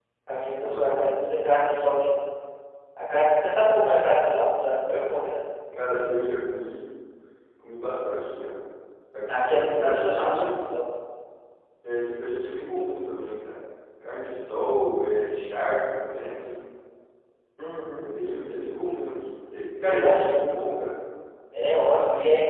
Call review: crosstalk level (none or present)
present